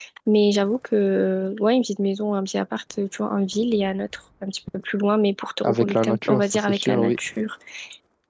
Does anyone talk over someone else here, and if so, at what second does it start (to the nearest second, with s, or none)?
6 s